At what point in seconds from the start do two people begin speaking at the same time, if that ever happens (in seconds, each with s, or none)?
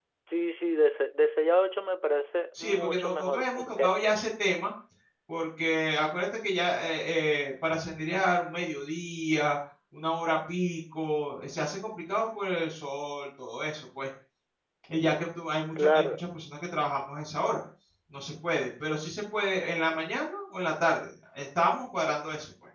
2.6 s